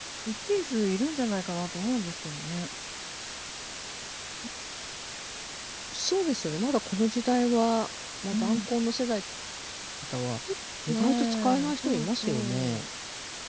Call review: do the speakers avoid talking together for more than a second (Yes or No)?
No